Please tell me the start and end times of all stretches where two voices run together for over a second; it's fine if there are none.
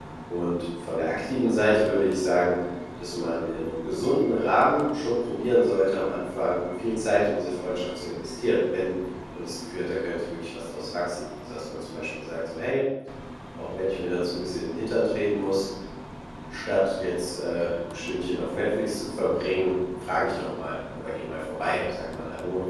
none

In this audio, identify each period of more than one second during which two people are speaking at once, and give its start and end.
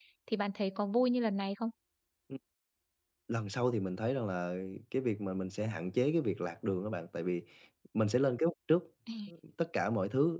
none

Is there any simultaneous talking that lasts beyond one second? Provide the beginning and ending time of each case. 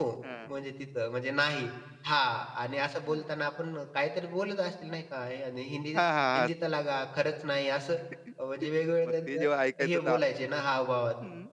none

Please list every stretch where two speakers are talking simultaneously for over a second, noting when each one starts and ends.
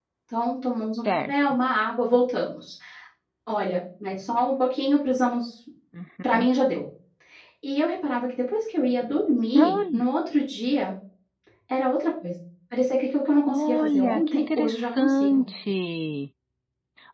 13.5-15.4

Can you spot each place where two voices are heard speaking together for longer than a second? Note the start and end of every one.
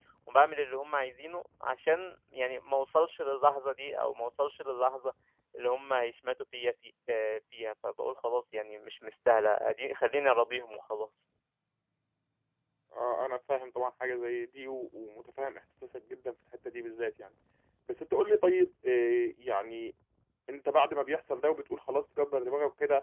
none

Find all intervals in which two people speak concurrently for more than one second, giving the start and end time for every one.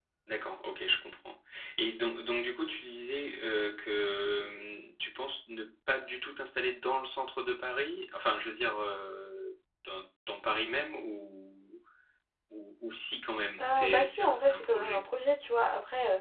13.7-15.0

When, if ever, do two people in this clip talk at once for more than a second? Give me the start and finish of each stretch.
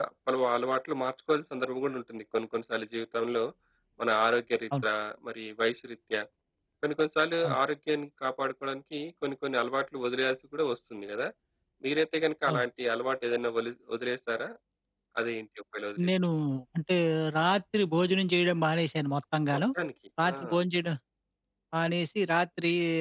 none

